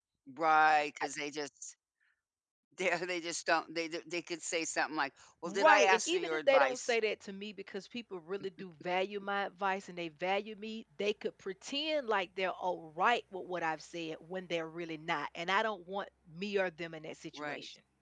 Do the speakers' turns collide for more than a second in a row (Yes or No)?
Yes